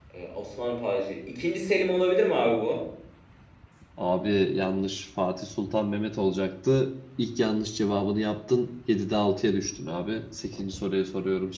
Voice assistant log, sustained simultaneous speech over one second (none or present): none